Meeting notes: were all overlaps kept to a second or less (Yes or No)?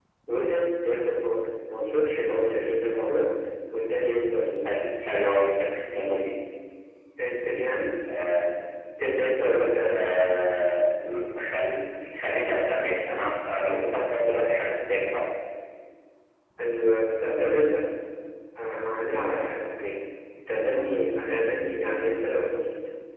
Yes